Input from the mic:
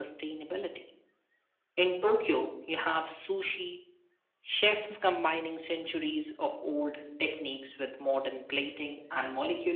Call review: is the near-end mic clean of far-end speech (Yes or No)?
No